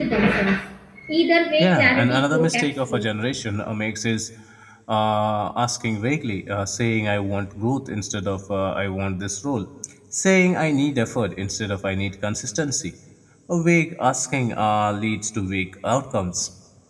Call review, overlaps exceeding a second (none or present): present